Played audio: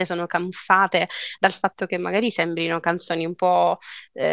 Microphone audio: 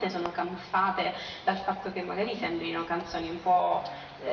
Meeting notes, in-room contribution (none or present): none